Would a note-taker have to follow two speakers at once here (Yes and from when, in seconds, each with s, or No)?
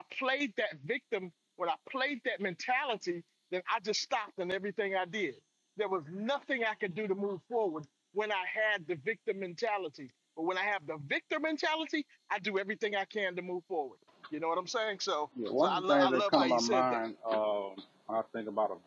Yes, from 15.4 s